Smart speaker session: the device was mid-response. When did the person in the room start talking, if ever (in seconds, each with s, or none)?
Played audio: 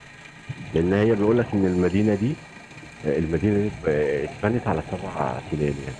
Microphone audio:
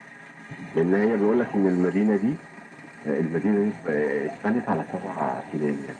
none